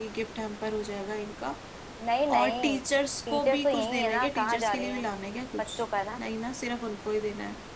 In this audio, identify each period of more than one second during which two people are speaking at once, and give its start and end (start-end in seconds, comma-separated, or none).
3.3-5.0